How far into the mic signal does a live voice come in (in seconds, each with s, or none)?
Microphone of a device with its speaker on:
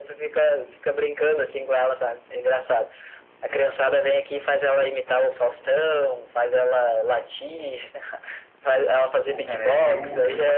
9.2 s